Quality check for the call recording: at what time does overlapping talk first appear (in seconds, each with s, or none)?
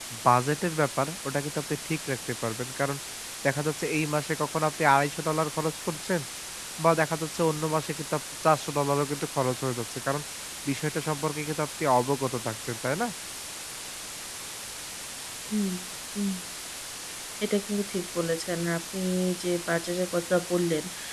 none